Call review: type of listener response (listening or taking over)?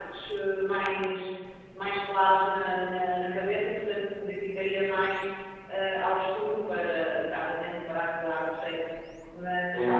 taking over